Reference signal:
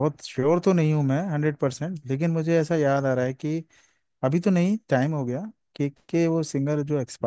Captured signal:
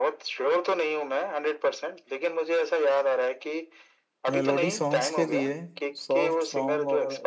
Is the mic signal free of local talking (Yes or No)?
No